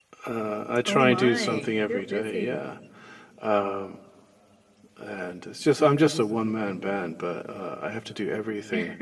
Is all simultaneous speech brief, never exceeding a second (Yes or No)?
No